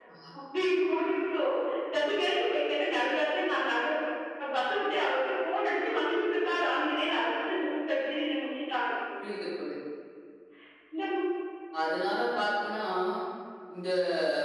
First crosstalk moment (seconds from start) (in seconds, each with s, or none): none